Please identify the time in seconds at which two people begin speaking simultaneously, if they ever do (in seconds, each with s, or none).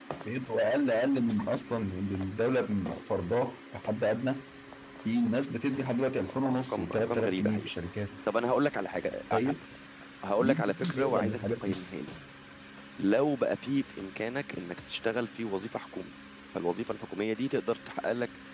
6.2 s